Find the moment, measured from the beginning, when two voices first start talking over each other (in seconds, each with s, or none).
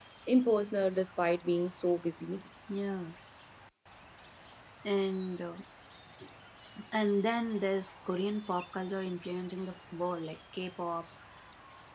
none